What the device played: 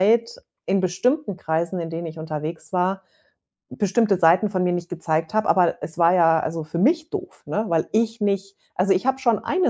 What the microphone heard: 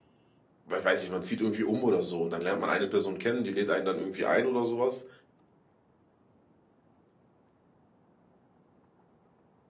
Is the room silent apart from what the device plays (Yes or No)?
No